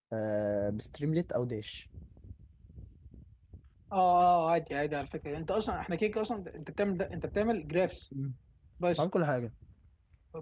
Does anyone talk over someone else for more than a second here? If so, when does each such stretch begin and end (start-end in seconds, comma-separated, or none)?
none